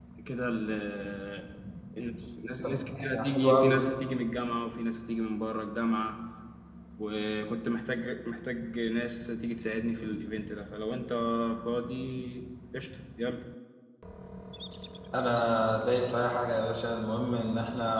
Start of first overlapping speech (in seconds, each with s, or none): 2.6 s